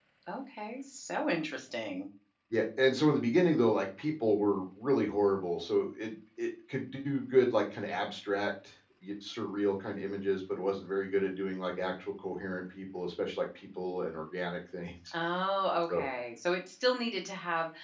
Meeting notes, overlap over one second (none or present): none